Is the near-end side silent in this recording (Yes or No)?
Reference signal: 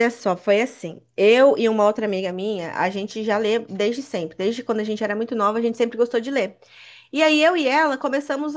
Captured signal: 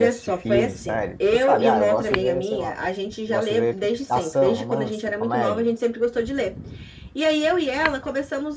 No